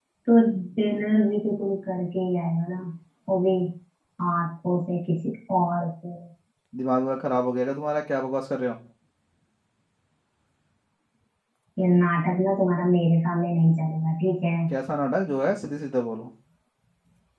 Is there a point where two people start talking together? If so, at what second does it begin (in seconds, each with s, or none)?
none